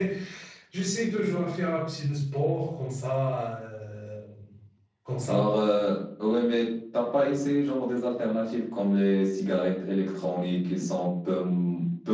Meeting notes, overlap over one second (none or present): none